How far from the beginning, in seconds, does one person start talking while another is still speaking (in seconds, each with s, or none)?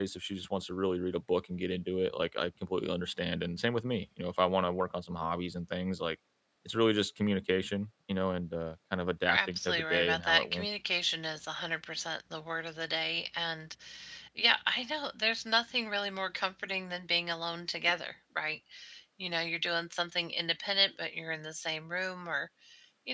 9.3 s